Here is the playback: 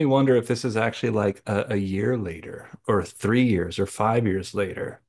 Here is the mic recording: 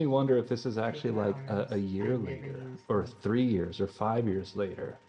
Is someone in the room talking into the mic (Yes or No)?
Yes